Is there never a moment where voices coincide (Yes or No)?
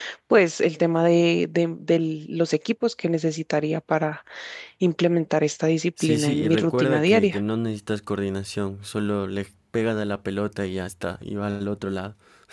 No